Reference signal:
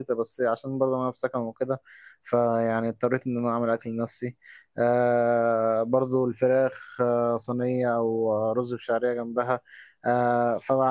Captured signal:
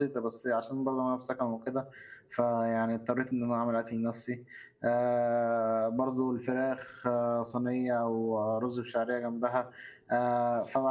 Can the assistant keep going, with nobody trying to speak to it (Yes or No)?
Yes